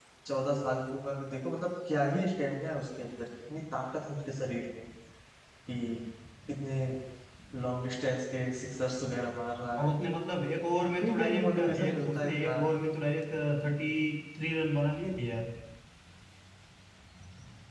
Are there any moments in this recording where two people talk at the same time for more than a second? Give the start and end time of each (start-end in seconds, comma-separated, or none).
11.0-12.6